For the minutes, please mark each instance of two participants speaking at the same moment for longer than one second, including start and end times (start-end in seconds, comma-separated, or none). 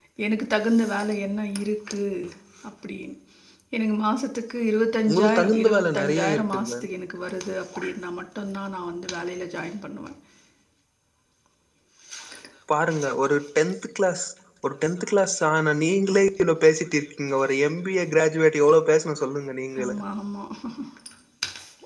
5.1-6.8